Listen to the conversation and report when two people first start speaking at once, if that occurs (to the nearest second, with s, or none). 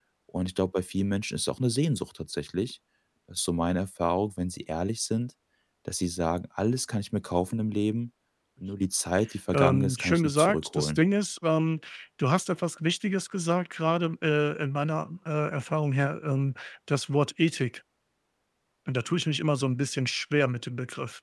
10 s